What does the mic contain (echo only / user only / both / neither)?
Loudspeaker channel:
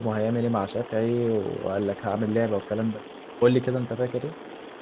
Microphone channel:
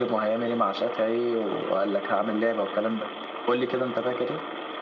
echo only